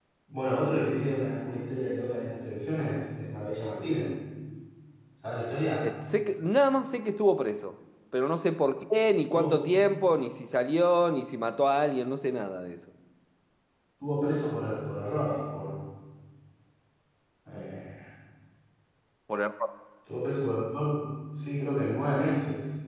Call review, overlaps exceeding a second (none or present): none